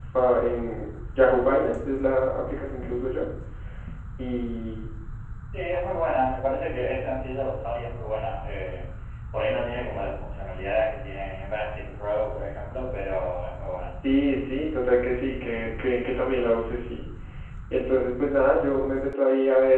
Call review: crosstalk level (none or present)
none